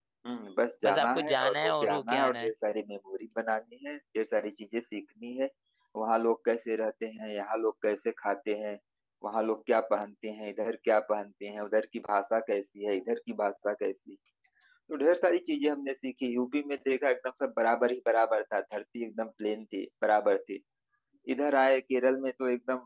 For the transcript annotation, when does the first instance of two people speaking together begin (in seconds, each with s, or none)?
0.8 s